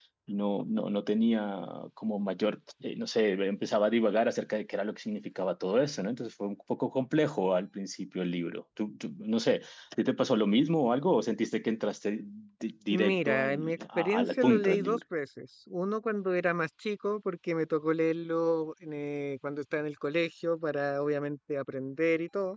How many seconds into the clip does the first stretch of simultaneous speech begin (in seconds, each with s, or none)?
12.9 s